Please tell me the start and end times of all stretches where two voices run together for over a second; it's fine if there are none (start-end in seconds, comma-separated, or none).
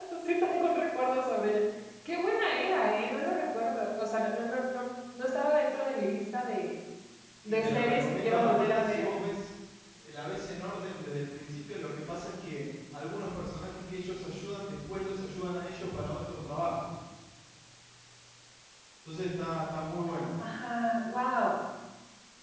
7.5-9.1